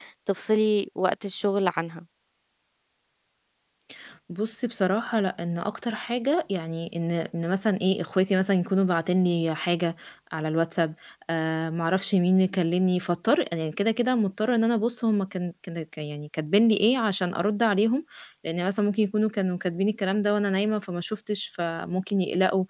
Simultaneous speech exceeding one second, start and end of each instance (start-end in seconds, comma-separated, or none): none